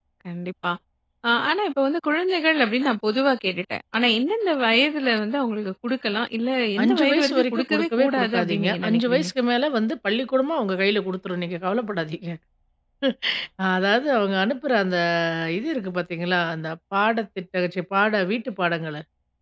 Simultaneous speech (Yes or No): Yes